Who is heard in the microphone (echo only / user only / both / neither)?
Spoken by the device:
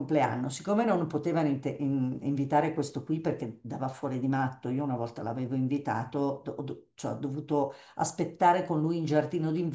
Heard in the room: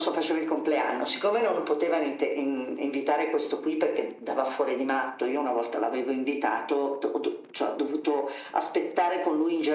echo only